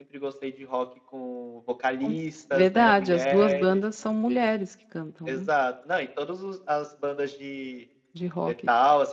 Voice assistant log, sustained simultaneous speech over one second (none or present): present